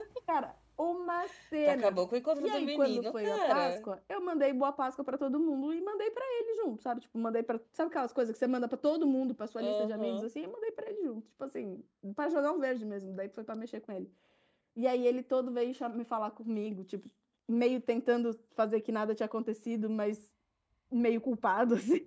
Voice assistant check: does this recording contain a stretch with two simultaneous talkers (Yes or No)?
Yes